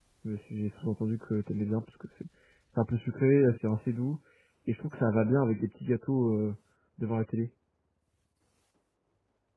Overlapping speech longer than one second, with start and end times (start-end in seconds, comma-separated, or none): none